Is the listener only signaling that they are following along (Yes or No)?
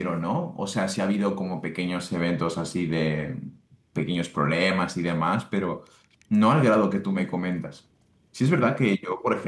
Yes